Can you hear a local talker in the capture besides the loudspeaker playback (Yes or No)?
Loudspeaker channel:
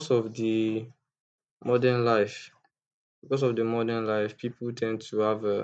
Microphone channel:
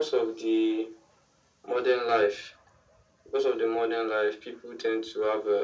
No